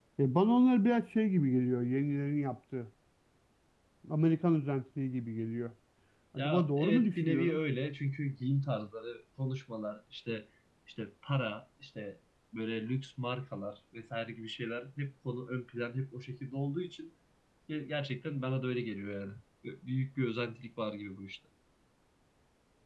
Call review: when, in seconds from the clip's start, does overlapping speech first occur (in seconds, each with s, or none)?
6.4 s